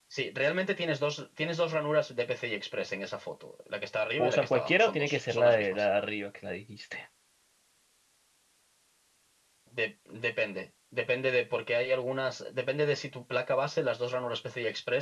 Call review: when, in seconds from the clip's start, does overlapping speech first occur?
4 s

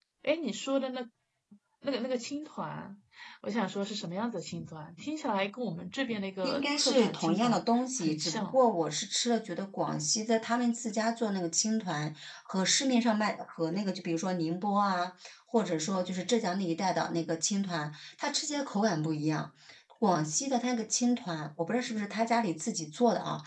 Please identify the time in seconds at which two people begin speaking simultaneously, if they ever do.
6 s

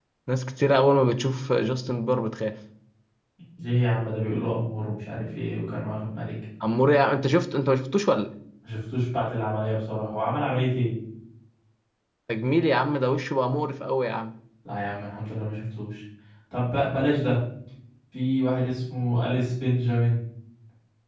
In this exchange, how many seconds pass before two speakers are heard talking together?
none

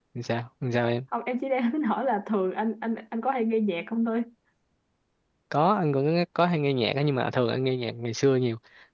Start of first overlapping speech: none

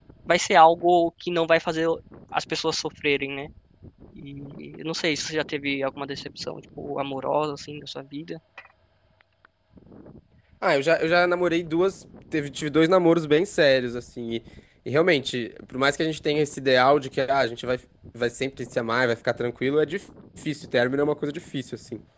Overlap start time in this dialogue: none

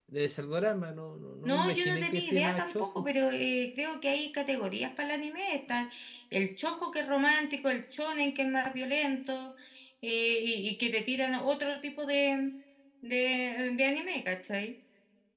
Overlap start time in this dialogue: 1 s

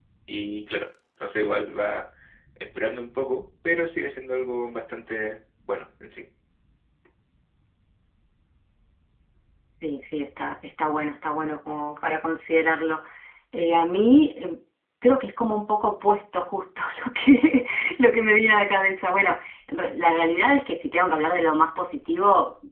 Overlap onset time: none

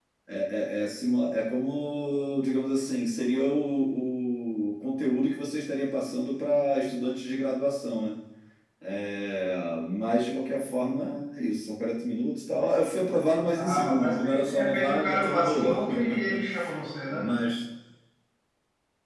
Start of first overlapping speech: 14 s

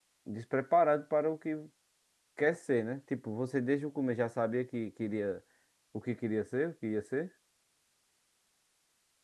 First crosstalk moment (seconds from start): none

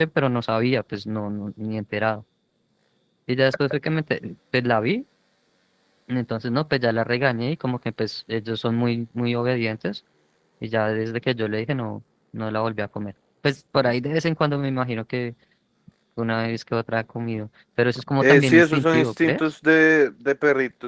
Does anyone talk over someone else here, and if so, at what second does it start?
18 s

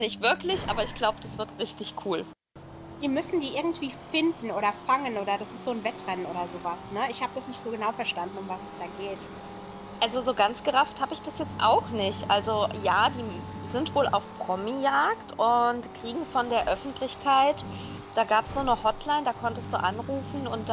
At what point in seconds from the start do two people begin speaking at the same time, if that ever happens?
none

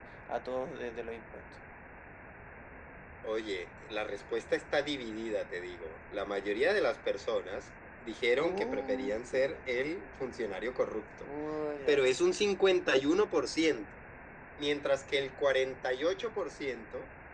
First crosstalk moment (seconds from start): 8 s

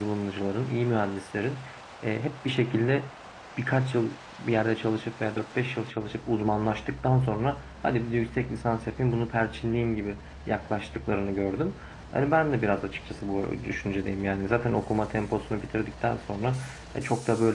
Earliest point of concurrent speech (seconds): none

